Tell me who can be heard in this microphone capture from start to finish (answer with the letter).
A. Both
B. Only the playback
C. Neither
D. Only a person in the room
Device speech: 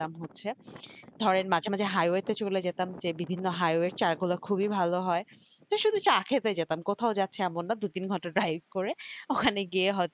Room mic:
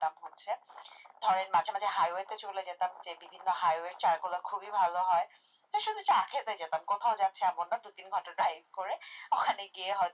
B